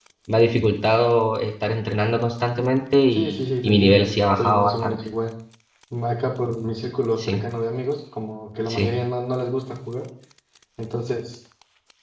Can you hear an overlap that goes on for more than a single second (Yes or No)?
Yes